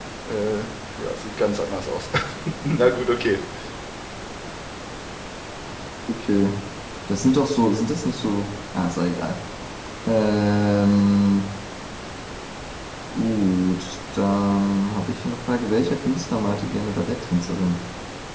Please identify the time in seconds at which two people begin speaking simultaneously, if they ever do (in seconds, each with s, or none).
none